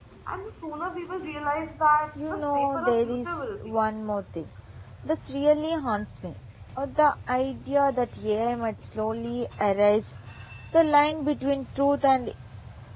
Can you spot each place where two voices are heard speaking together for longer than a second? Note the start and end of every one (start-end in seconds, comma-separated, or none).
2.2-3.7